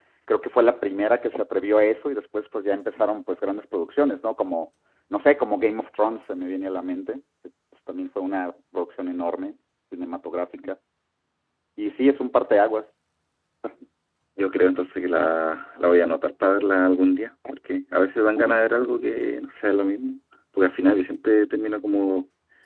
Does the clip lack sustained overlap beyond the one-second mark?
Yes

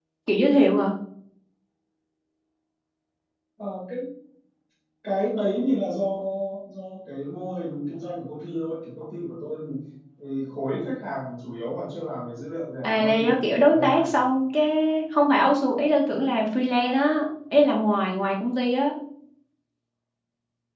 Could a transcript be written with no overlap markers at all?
No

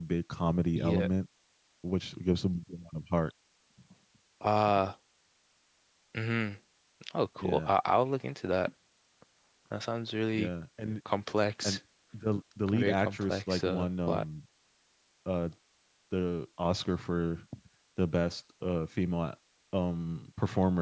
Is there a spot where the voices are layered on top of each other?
Yes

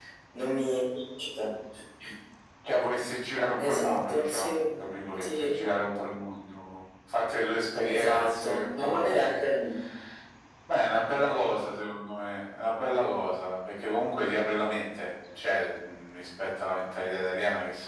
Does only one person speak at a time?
No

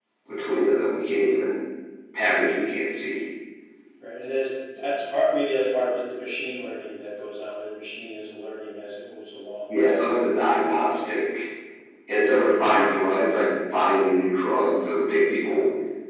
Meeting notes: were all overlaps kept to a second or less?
Yes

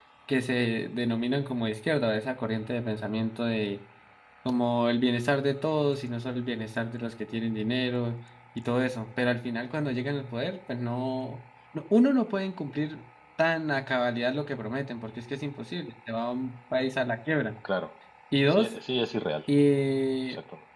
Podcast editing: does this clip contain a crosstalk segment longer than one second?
No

